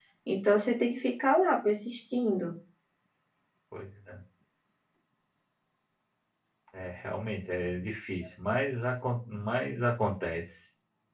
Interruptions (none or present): none